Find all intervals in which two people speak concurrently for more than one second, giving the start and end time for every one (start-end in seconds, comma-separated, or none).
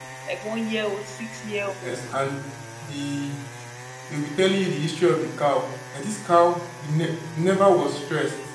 none